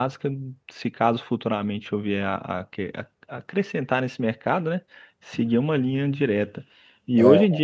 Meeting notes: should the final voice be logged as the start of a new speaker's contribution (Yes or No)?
No